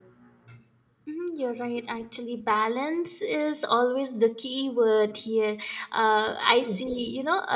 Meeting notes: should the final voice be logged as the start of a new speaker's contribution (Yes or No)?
No